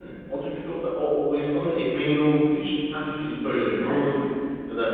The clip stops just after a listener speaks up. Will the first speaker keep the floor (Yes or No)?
Yes